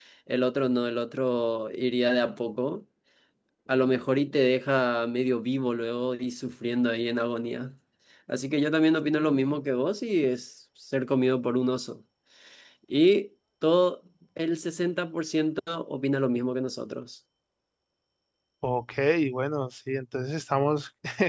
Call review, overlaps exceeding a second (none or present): none